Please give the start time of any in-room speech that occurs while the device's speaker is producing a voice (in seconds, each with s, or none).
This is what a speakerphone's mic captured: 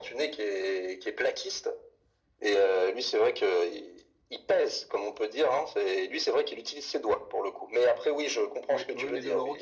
8.7 s